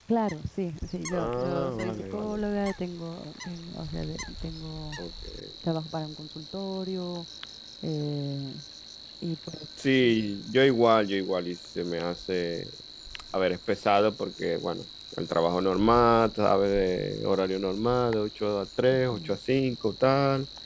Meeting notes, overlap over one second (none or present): present